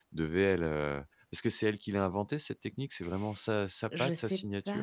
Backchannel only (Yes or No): No